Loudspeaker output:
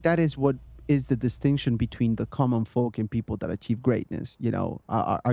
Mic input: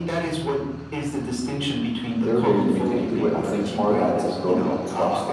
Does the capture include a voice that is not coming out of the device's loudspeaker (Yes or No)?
Yes